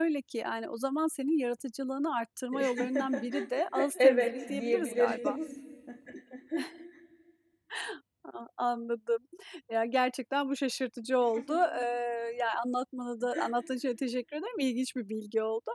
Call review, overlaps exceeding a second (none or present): present